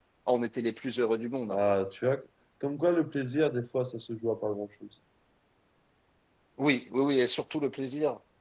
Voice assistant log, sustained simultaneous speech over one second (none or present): none